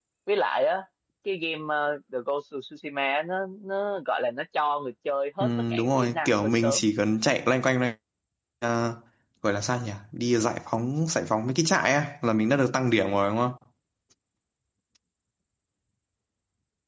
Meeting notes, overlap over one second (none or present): present